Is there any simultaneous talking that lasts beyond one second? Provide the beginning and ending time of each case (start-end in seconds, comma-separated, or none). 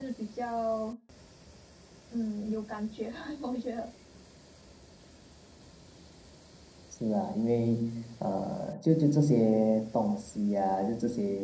none